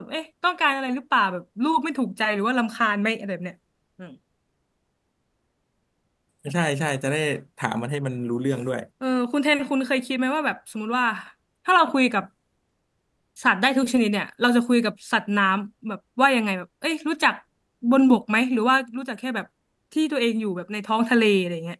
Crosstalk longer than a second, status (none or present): none